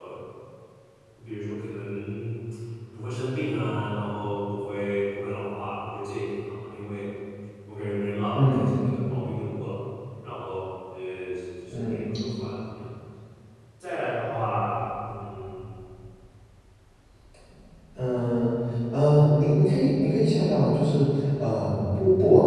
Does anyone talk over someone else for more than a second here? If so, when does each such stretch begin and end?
none

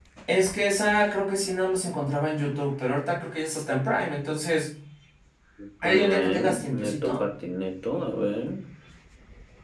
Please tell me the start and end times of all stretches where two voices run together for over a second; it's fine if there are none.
5.8-7.2

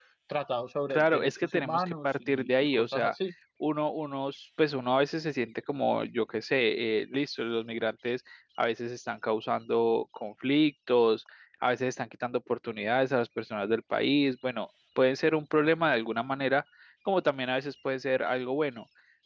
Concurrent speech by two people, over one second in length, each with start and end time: 0.9-3.1

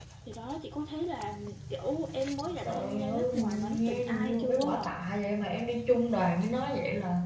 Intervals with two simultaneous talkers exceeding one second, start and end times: 2.6-4.9

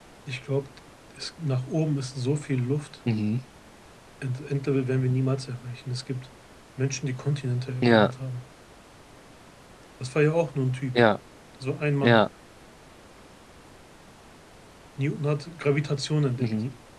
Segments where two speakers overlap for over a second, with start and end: none

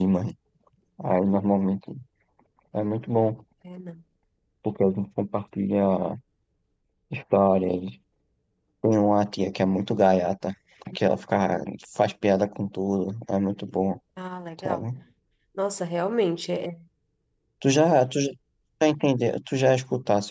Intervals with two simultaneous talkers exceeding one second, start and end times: none

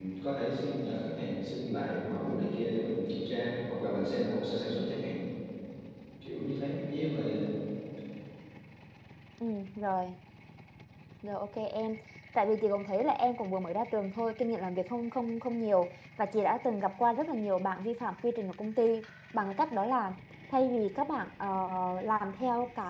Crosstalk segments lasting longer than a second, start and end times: none

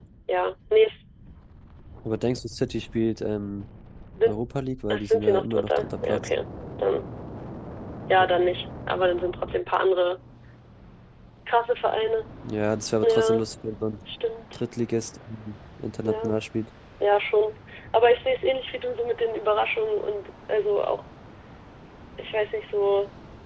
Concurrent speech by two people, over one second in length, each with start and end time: 4.9-6.3

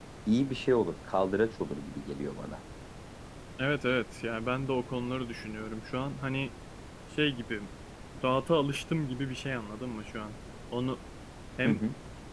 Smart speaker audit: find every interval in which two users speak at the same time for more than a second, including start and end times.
none

